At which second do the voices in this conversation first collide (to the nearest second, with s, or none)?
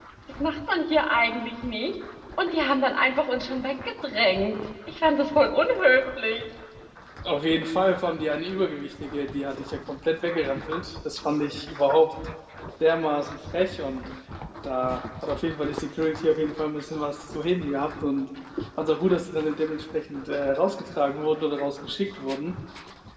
none